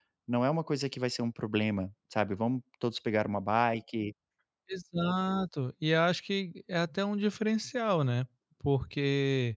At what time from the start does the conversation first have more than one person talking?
none

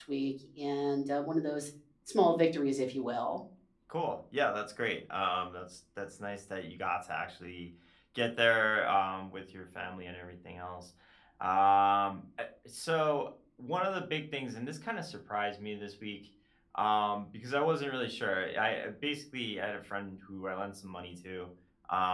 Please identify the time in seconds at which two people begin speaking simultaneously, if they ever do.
none

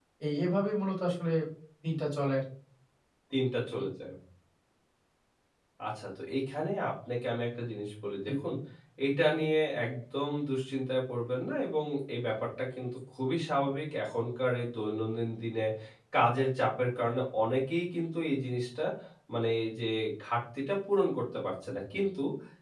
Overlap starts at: none

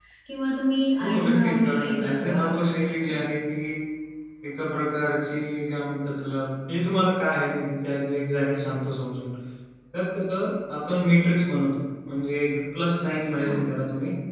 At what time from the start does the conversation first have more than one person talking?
1.0 s

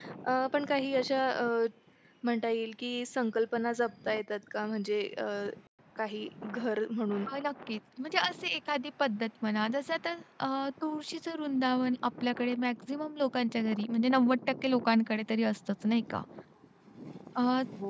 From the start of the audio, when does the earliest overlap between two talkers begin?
none

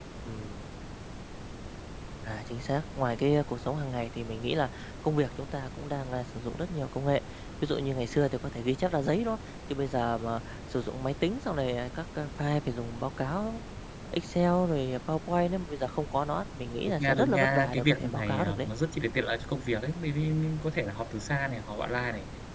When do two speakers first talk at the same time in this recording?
16.9 s

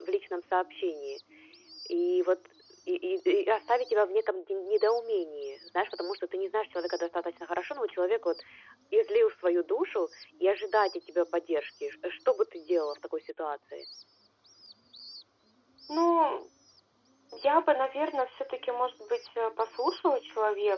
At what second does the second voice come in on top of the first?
none

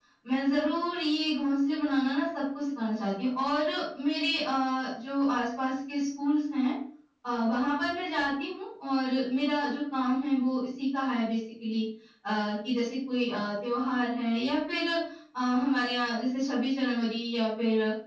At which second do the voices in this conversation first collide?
none

